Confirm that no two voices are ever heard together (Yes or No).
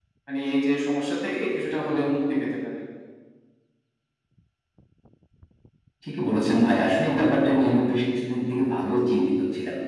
Yes